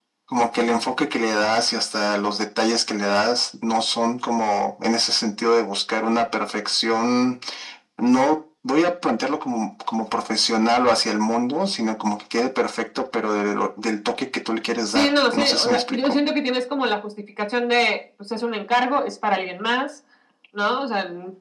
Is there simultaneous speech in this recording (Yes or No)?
Yes